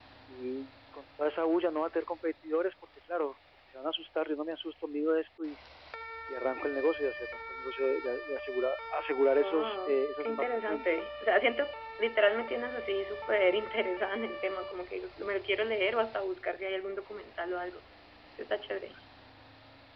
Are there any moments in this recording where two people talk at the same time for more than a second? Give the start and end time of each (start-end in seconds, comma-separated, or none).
9.4-10.9